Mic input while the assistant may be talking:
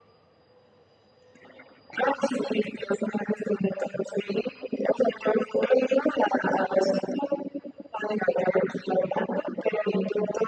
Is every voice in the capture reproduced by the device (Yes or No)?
Yes